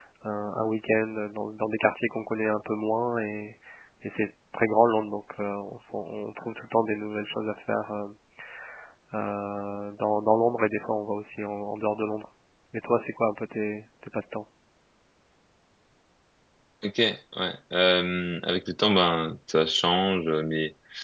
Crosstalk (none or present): none